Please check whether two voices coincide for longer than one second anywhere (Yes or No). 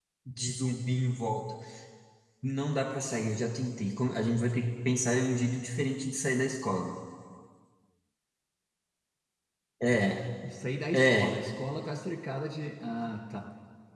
No